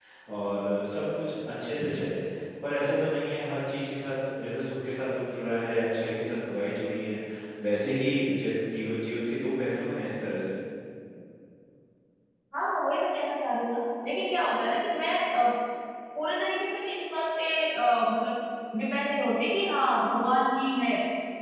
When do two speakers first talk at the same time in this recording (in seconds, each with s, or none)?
none